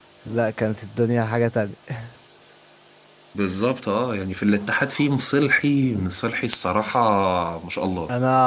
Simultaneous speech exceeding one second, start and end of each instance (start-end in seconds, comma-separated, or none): none